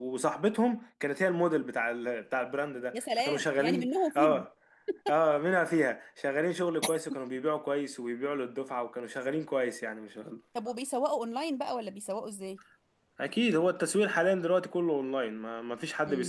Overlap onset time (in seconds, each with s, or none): 2.9 s